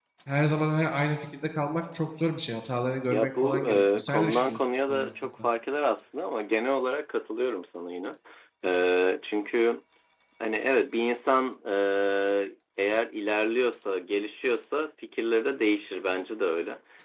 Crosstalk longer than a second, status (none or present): present